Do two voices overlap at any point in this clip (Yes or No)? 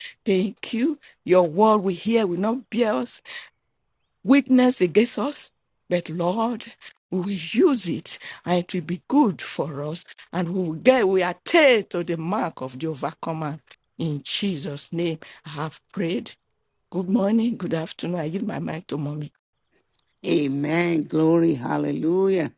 No